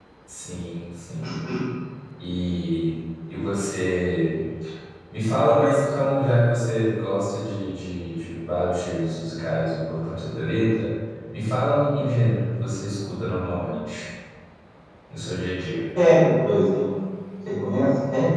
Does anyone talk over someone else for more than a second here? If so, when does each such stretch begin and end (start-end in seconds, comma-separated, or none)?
none